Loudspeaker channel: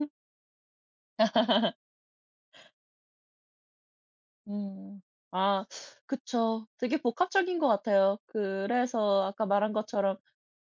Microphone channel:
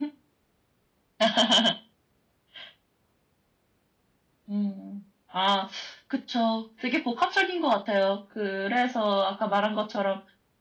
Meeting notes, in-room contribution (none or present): none